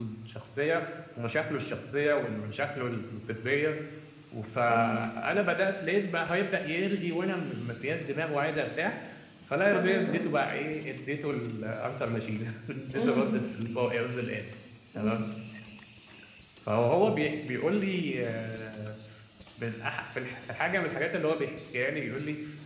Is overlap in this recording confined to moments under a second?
Yes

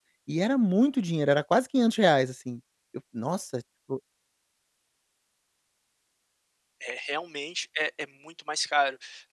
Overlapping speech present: No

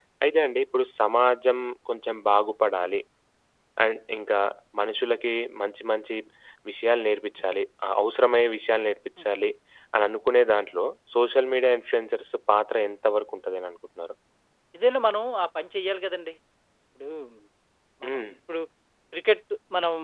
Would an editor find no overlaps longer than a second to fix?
Yes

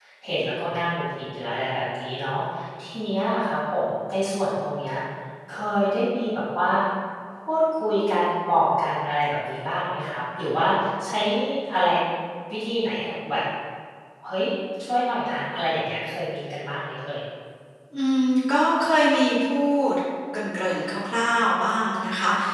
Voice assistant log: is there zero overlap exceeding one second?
Yes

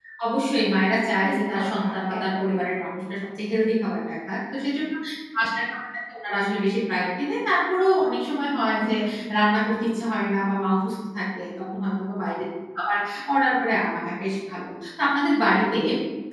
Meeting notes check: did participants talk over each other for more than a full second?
Yes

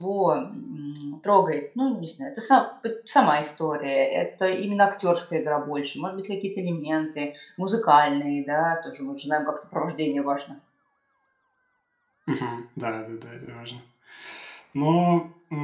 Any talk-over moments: No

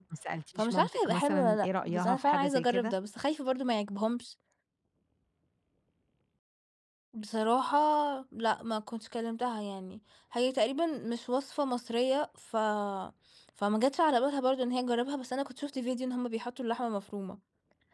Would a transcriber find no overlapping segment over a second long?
No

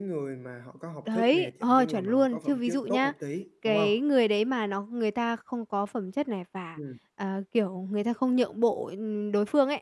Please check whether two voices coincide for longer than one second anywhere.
Yes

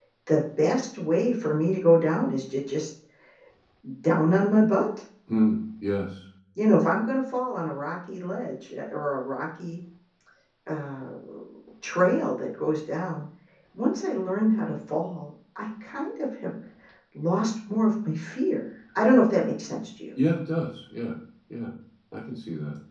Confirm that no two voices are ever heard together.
Yes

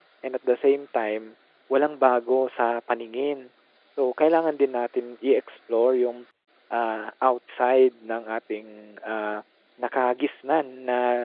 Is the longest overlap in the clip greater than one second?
No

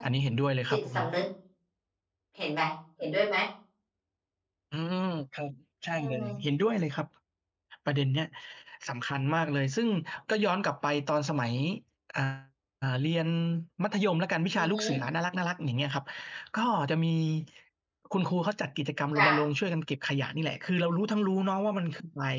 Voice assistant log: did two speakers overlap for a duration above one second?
No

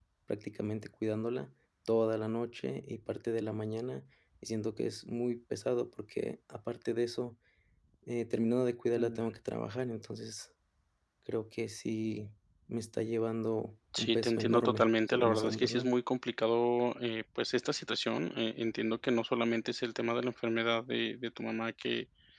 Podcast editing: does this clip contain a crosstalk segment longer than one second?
Yes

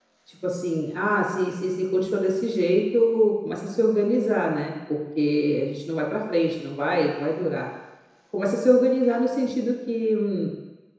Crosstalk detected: No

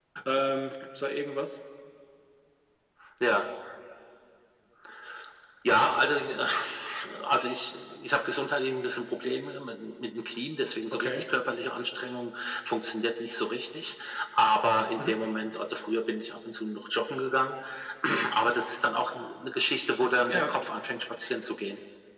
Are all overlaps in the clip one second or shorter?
Yes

